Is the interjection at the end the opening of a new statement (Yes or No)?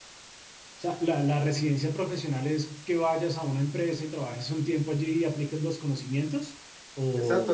Yes